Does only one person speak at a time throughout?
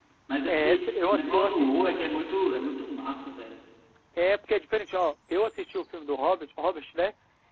No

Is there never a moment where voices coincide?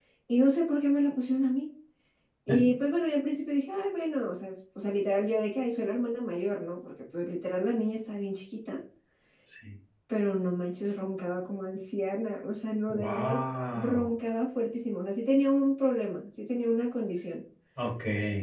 No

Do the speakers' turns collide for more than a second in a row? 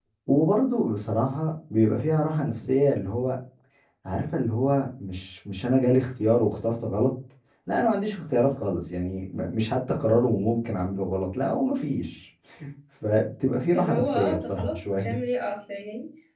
Yes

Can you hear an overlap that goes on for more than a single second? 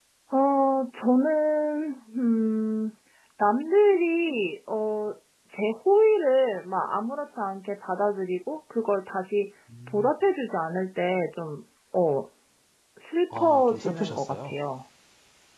Yes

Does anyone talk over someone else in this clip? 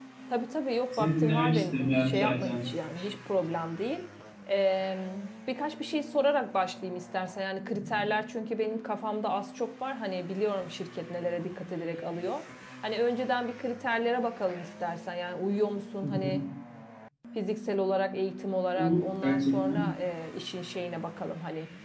Yes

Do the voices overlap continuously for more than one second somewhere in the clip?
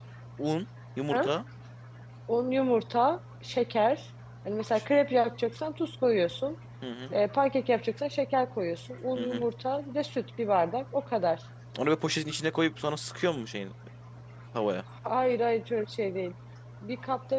No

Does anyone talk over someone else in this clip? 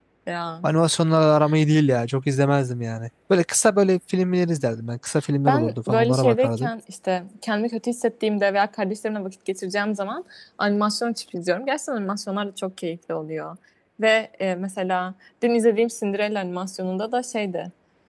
Yes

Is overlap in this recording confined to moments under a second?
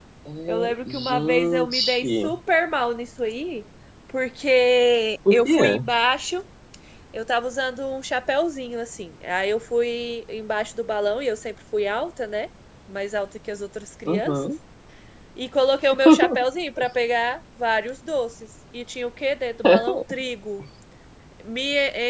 No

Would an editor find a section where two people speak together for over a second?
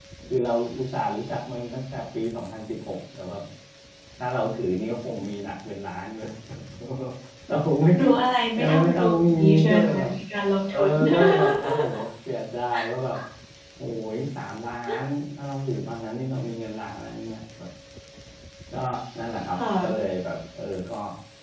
Yes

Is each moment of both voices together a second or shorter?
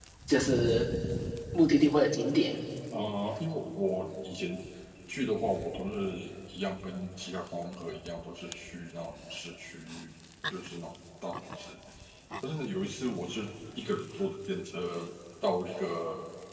Yes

